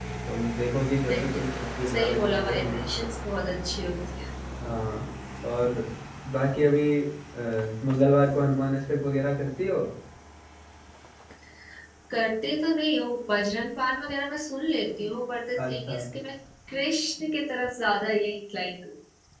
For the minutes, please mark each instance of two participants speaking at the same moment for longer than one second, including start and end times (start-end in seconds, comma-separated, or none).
1.1-2.8